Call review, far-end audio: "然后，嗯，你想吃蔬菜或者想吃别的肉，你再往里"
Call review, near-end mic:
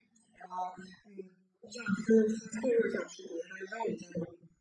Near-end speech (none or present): none